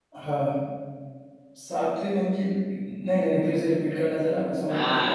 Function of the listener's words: taking over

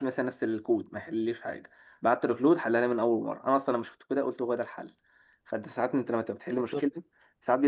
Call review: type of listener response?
listening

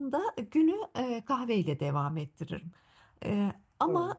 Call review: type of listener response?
listening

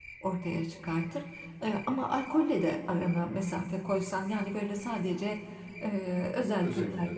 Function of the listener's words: listening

